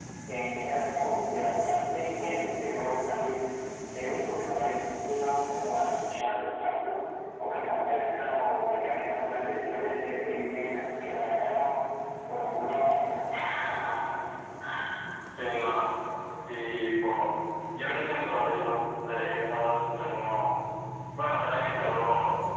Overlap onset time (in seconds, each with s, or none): none